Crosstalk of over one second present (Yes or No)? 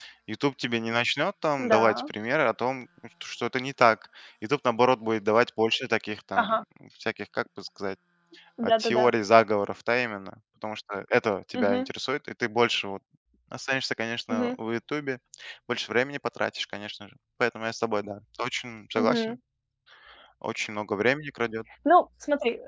No